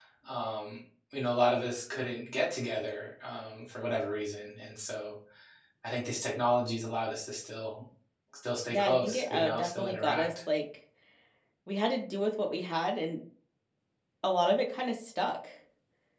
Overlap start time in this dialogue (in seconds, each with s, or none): 8.7 s